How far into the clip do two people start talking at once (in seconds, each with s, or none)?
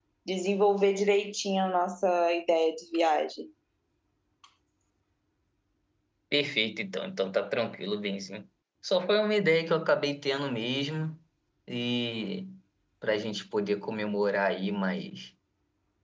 none